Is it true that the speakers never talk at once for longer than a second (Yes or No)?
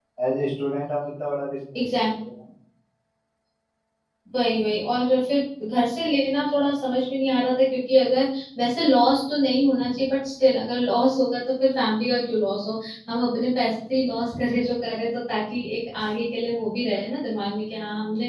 Yes